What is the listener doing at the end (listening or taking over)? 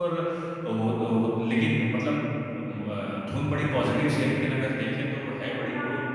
taking over